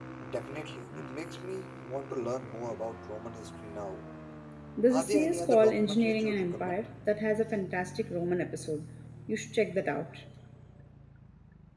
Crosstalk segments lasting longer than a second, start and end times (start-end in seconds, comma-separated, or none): 4.9-6.8